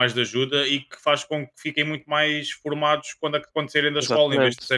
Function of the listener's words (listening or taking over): listening